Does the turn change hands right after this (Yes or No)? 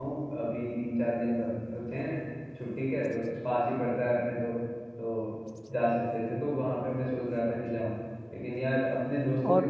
No